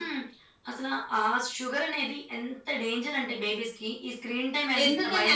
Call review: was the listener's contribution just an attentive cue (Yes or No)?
No